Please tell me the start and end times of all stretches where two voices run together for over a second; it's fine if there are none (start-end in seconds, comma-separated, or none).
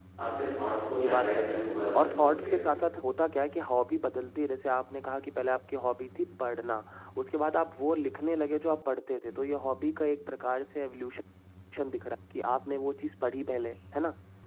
1.0-2.6